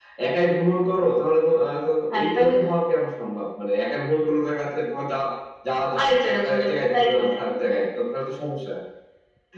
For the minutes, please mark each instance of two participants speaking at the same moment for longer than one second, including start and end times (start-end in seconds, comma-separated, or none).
6.0-7.6